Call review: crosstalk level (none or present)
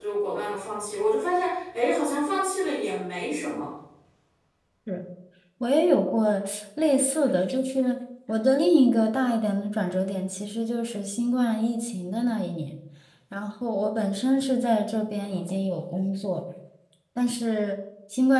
none